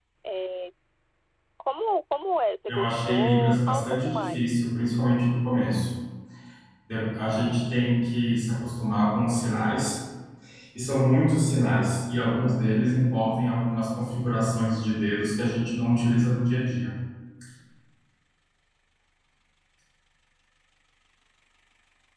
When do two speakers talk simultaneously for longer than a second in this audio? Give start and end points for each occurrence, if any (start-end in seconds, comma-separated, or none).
2.7-4.5